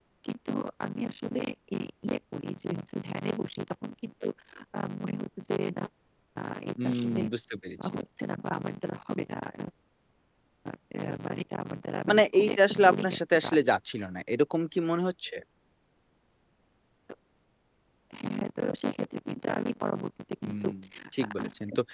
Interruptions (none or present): present